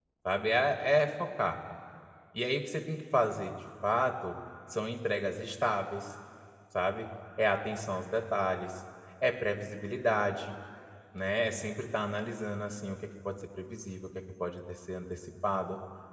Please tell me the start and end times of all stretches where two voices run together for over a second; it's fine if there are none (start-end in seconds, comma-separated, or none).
none